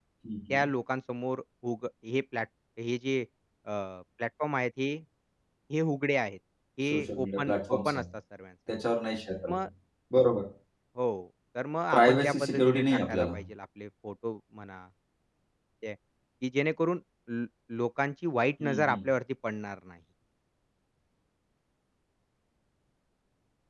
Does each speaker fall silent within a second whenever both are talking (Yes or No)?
No